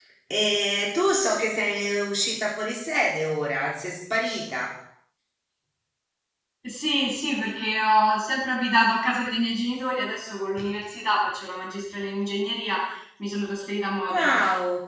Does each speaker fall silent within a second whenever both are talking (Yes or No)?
Yes